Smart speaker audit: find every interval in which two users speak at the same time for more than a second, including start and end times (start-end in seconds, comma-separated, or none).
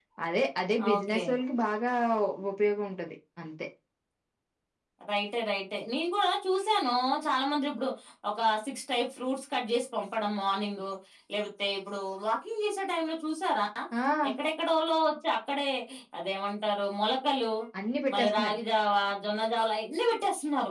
none